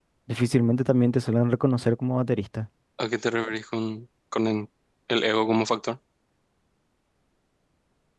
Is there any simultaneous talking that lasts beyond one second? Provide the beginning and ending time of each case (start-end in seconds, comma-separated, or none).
none